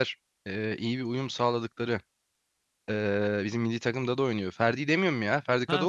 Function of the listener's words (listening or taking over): taking over